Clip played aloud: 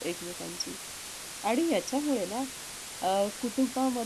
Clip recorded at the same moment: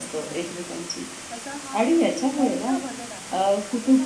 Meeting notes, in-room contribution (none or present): present